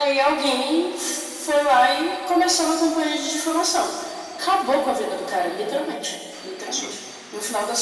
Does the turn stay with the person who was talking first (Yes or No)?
Yes